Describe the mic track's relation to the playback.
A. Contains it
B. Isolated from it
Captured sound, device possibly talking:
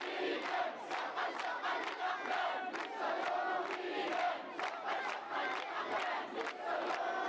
B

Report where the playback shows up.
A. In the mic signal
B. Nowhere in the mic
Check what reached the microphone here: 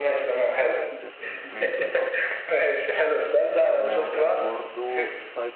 A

